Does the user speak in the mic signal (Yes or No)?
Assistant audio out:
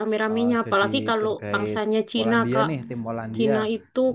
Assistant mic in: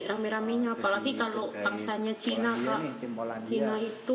No